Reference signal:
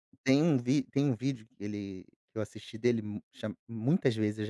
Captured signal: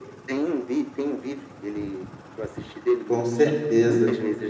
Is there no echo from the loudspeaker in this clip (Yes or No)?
No